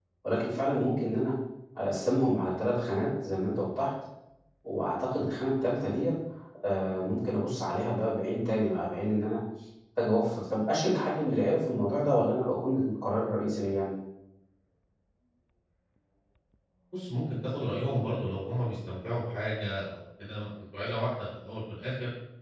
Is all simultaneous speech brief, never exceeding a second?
Yes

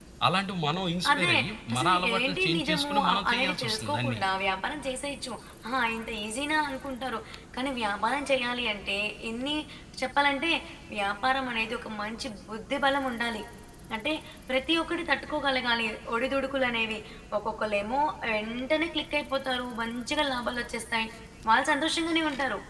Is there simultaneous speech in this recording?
Yes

